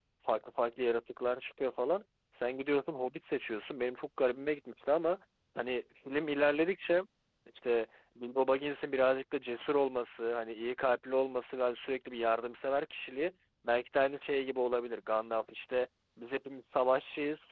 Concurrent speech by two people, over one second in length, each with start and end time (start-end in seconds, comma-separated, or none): none